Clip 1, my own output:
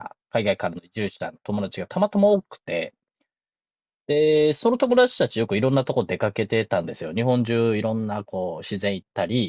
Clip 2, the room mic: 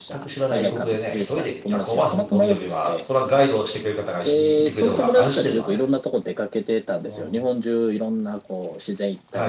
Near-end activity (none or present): present